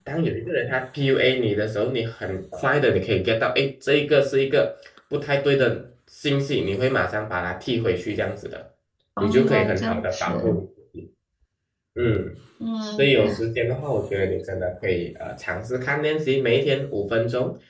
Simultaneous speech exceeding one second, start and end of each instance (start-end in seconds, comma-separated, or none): 9.2-10.6